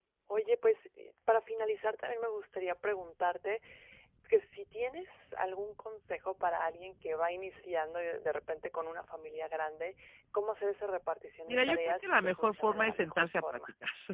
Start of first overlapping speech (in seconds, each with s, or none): 11.5 s